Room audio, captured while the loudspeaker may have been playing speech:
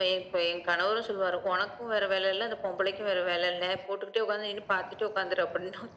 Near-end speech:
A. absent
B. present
A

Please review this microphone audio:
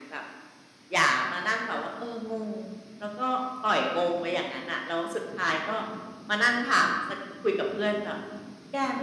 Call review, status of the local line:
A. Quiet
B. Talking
A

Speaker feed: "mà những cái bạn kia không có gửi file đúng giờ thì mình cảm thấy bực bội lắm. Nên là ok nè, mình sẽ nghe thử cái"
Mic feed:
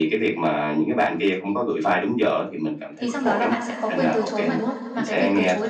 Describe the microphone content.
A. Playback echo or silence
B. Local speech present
B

